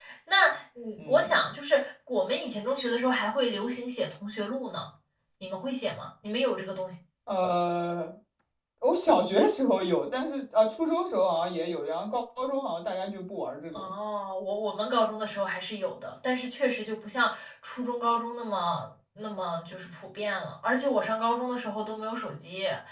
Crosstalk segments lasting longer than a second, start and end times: none

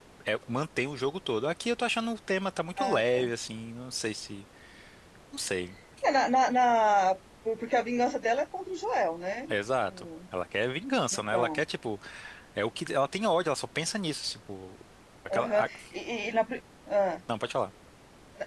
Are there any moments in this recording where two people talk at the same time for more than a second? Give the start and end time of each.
none

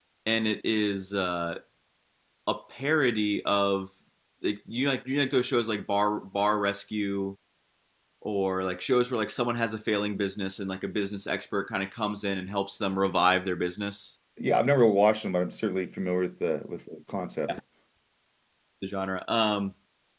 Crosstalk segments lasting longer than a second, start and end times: none

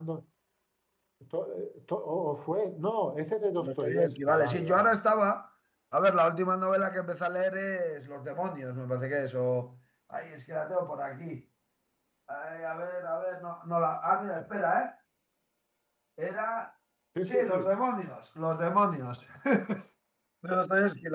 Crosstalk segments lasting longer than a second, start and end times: 3.6-5.0

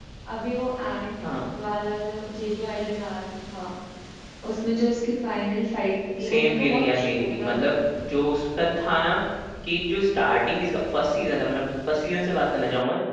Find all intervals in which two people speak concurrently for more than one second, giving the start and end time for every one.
6.2-7.7

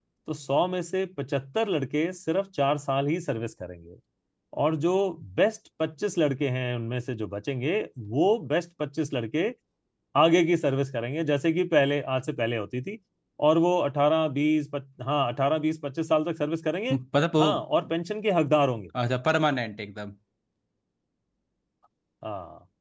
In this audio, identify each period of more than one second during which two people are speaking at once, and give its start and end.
none

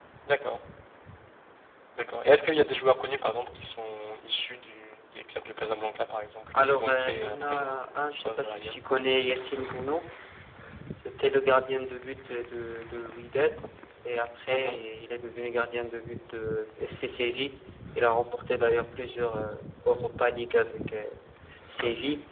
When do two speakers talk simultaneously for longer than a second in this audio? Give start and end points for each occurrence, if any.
6.6-8.8

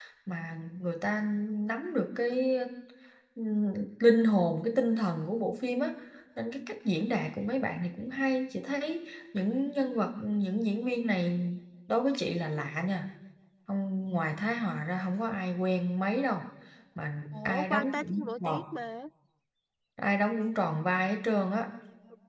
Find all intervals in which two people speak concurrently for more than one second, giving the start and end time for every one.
17.3-18.6

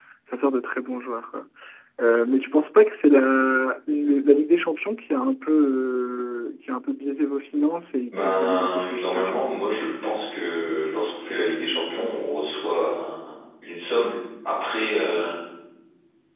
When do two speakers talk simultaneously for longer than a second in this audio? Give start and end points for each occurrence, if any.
8.1-9.4

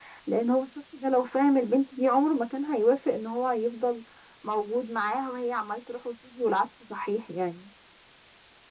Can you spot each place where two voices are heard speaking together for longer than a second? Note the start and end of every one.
none

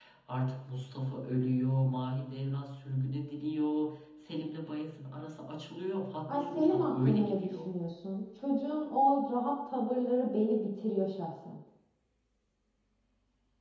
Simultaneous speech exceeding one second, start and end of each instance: 6.3-7.7

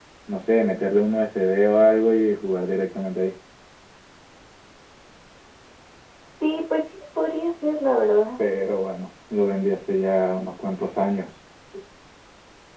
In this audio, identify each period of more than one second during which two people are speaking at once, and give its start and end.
none

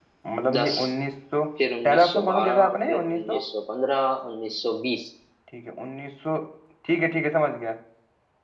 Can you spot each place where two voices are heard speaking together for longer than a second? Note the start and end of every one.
1.8-3.4

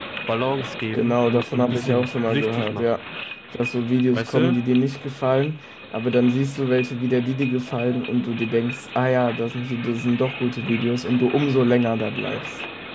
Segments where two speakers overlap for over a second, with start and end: 0.9-2.9

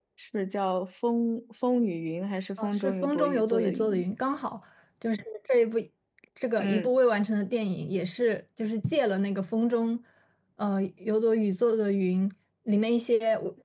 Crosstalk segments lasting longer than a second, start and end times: 2.6-3.9

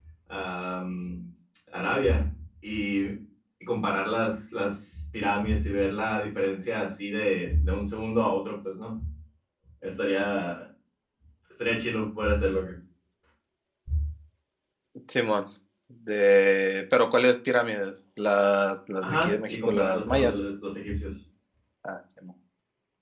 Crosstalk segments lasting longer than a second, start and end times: 19.0-20.4

